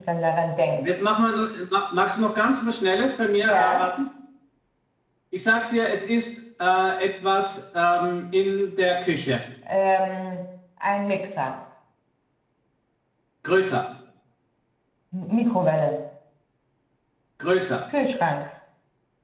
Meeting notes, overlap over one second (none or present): none